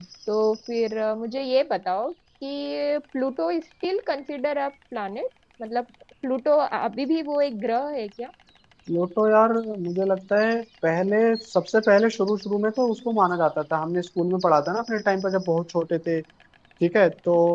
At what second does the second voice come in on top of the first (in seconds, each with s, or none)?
none